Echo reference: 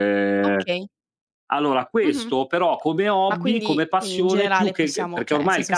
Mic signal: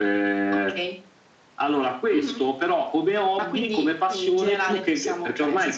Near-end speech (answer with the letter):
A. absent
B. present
A